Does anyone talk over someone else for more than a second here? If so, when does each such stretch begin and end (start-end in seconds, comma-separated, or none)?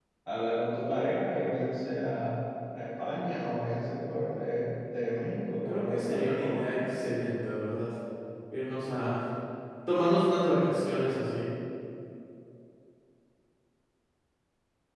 5.7-6.9